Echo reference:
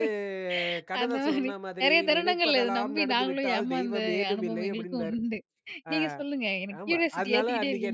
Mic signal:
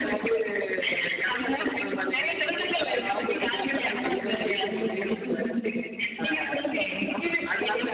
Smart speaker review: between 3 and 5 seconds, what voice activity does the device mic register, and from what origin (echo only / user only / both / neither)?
echo only